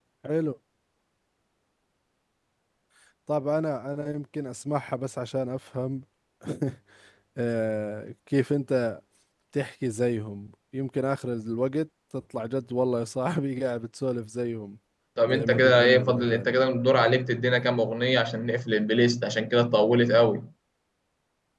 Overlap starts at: 15.3 s

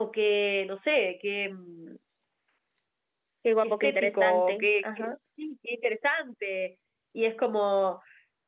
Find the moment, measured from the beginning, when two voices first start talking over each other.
3.6 s

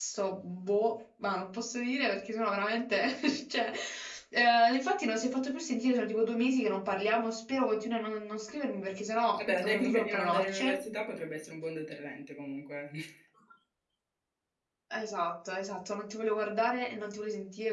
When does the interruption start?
9.4 s

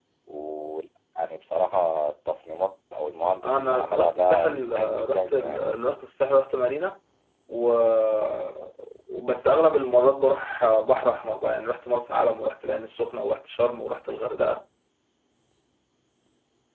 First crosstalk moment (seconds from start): 3.4 s

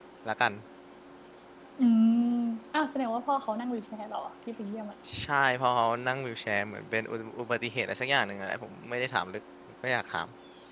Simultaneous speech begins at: none

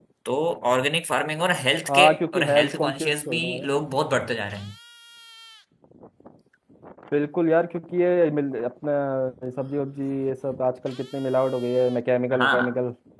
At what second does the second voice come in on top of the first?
1.9 s

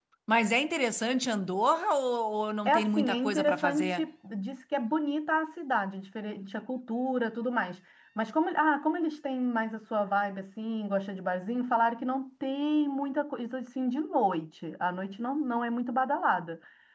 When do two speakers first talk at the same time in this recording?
2.6 s

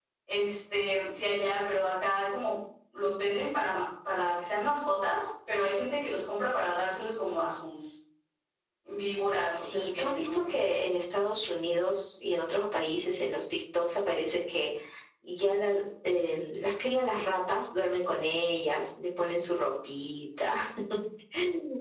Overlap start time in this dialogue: 9.4 s

